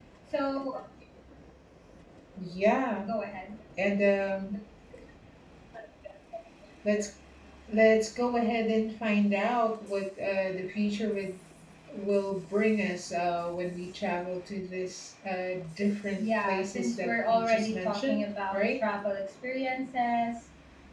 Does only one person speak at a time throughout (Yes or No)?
No